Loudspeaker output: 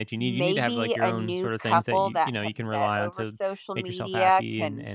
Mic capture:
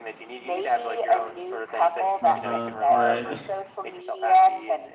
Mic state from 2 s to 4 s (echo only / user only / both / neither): both